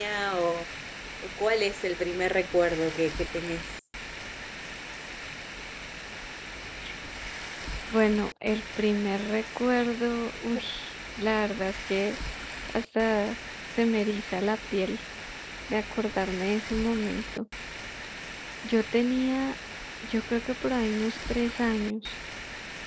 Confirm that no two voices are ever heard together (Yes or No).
Yes